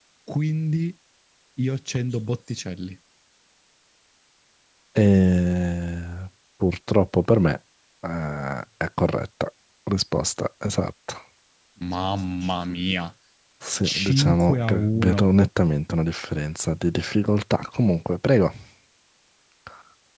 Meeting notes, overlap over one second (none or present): present